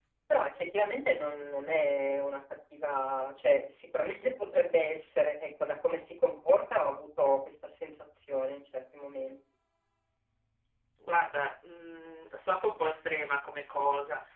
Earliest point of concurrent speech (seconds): none

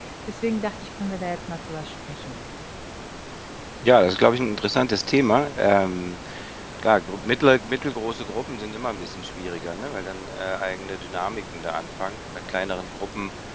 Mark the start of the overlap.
none

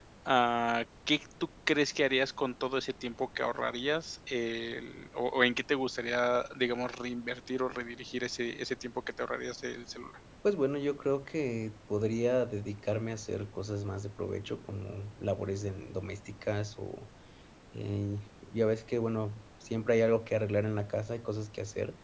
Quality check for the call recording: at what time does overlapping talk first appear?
none

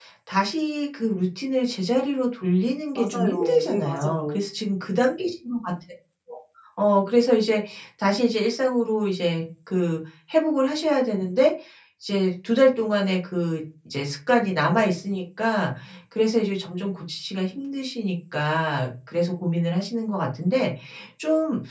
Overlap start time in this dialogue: 3 s

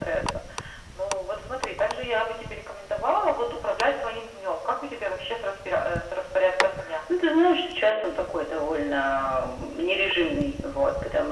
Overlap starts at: none

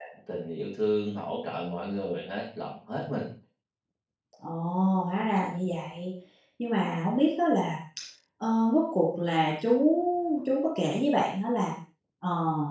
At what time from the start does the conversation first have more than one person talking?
none

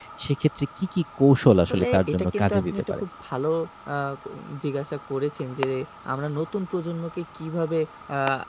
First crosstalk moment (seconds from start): 2 s

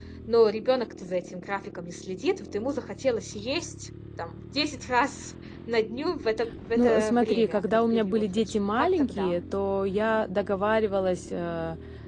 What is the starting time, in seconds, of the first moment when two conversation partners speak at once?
7 s

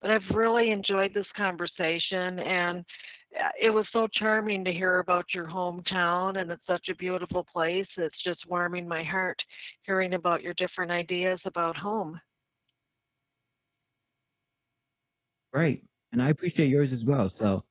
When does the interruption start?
none

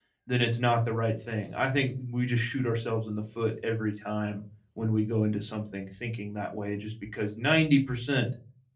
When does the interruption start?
none

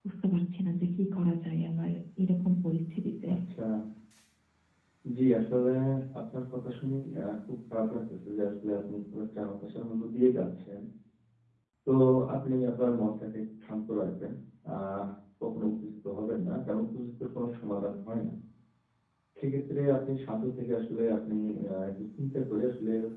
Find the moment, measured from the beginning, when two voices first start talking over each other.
none

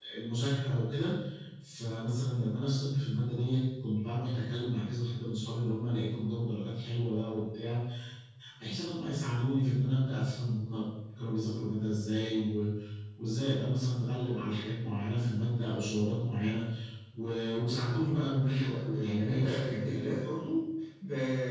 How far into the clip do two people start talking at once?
18 s

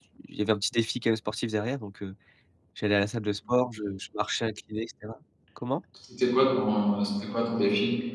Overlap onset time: none

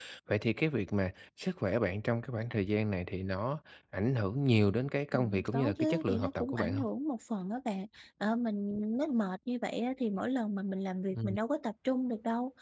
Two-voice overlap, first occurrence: 5 s

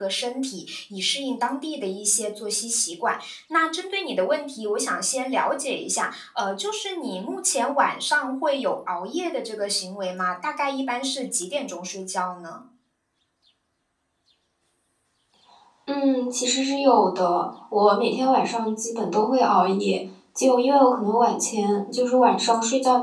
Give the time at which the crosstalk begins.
none

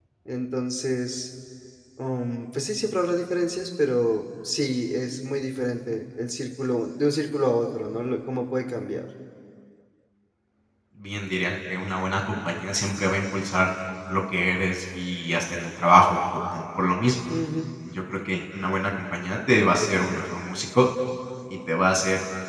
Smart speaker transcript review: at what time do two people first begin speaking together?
none

